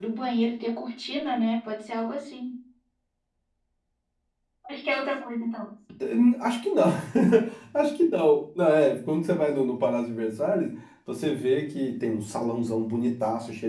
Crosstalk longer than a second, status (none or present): none